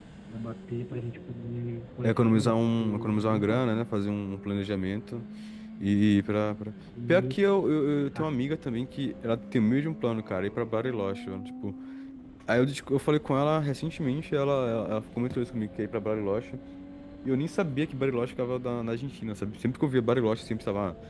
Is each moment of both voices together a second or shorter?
No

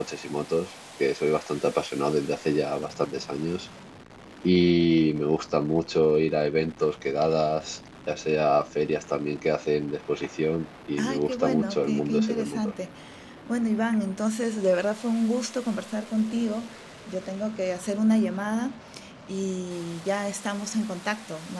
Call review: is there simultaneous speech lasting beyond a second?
Yes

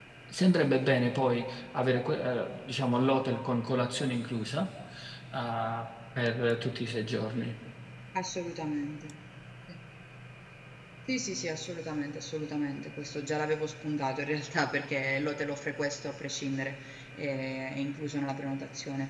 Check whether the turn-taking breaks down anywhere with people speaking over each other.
No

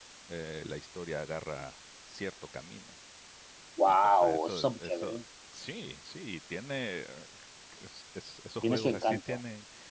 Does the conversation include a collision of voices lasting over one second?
Yes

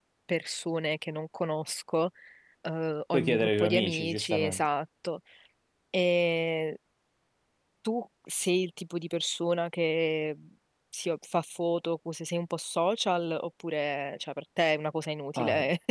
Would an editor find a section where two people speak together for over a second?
Yes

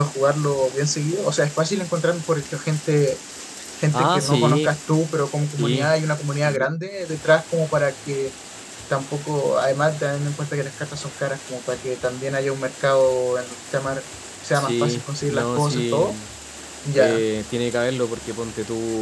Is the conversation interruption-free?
No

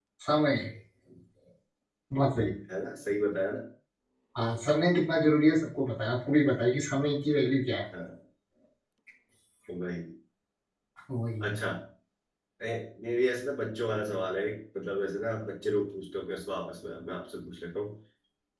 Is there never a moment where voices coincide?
Yes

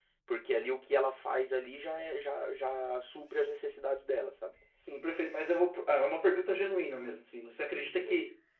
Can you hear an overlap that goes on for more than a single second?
No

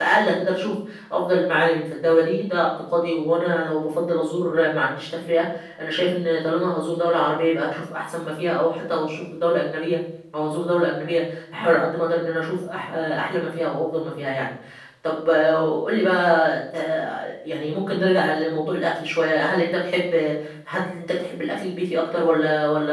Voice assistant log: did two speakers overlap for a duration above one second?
No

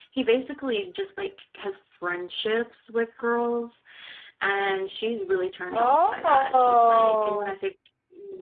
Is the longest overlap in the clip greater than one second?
Yes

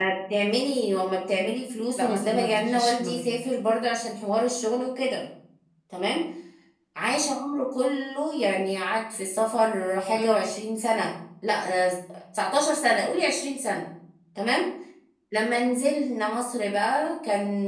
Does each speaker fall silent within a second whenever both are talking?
No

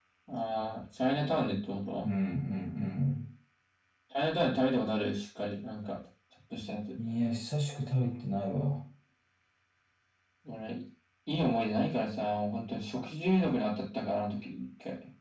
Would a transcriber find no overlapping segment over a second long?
Yes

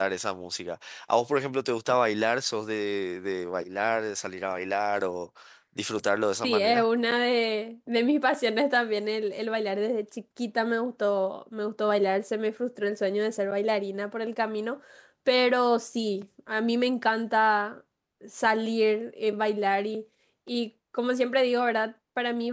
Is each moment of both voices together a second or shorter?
Yes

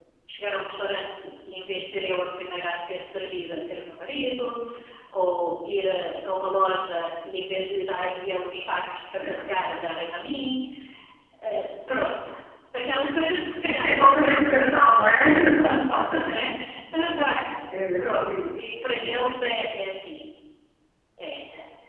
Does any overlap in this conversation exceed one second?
Yes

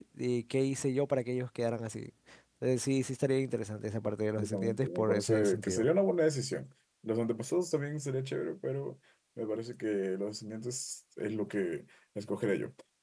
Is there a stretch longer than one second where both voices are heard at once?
Yes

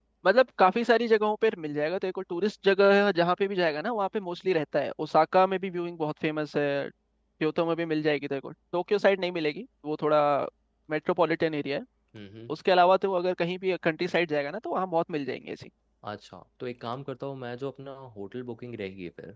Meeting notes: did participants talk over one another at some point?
No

